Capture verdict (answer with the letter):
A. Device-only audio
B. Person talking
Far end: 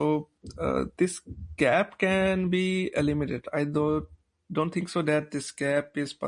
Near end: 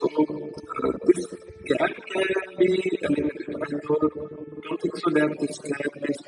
A